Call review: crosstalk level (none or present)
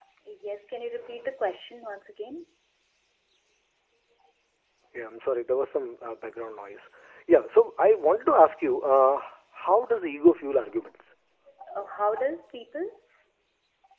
none